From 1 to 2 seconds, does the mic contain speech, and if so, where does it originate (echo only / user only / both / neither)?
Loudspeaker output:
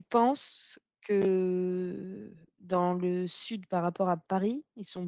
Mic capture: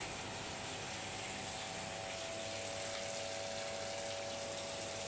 neither